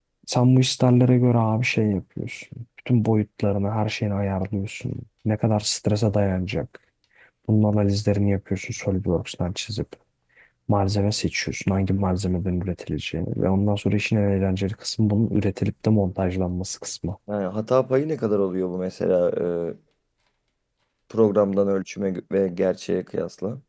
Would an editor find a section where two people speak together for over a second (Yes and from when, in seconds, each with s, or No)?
No